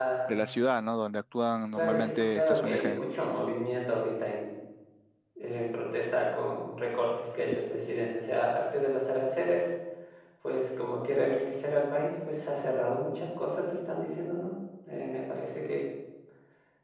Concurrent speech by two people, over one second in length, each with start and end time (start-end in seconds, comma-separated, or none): 1.8-3.0